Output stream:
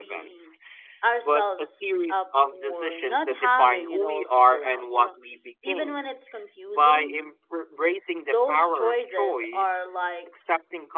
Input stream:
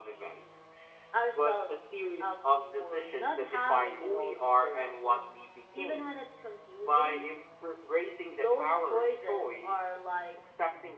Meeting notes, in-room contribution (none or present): none